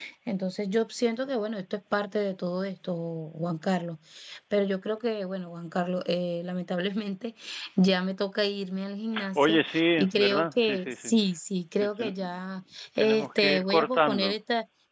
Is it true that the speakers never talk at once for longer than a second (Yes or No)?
No